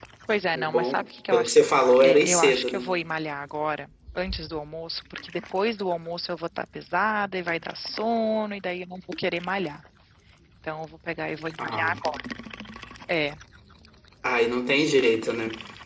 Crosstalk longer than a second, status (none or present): present